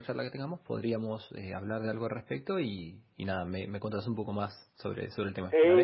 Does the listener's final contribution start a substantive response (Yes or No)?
Yes